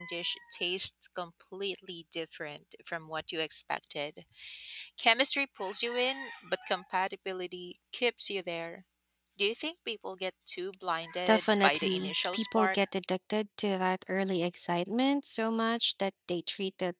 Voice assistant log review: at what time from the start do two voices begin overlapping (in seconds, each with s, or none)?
11.3 s